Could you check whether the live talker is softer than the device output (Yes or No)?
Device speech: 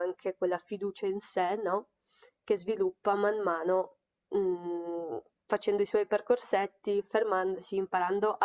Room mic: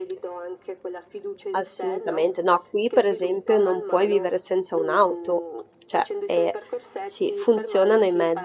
No